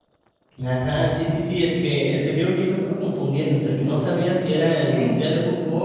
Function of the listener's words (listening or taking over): listening